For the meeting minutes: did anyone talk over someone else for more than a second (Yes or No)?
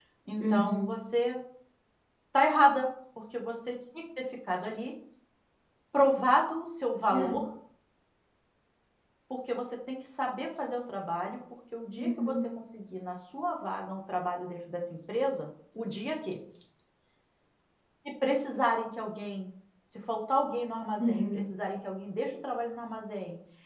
No